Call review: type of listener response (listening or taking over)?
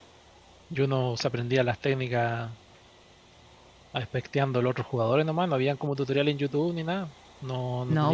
taking over